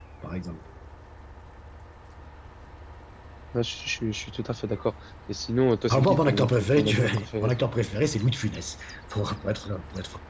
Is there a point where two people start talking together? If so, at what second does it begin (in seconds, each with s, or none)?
5.9 s